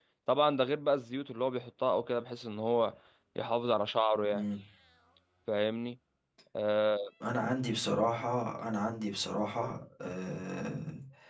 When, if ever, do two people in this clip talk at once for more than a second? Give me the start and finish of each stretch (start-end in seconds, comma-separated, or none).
none